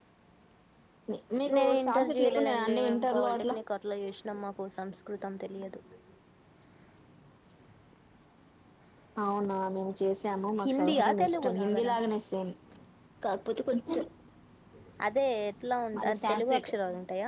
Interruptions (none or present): present